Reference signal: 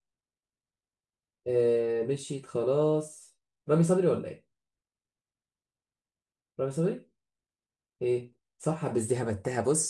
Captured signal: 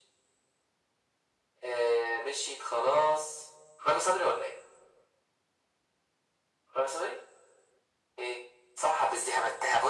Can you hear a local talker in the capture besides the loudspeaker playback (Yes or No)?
No